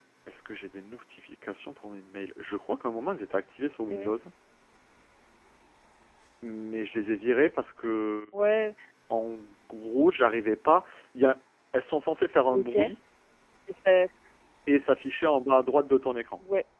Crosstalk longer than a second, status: none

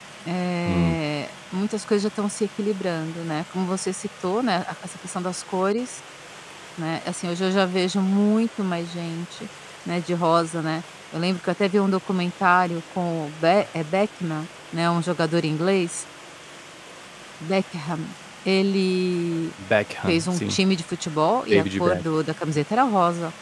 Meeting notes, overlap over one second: none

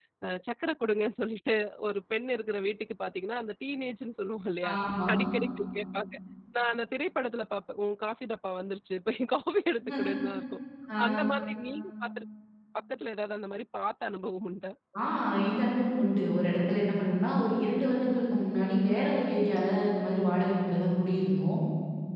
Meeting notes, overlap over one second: none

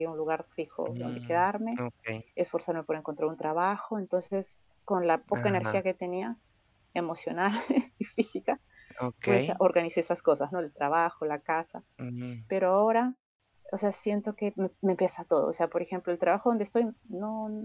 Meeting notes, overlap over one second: none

